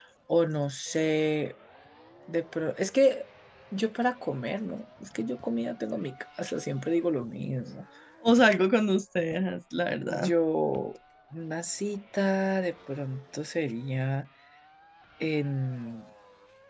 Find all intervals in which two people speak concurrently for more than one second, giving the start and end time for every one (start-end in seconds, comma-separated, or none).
none